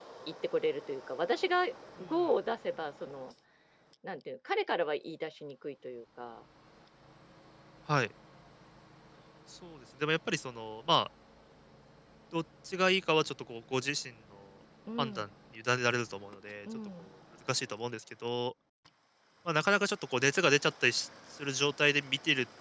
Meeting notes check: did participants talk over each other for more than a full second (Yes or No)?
No